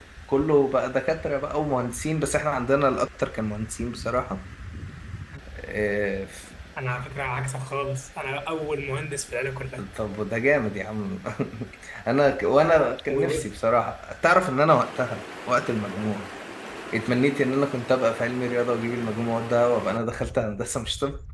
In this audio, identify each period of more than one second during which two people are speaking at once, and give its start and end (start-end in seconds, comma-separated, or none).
none